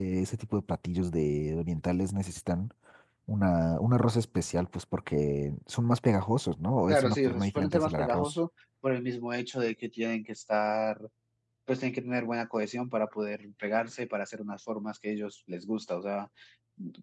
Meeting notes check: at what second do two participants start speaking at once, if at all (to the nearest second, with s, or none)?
7 s